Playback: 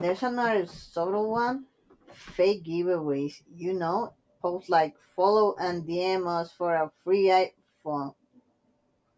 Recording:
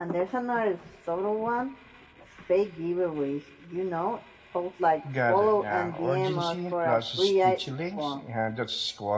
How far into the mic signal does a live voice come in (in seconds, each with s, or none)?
5.1 s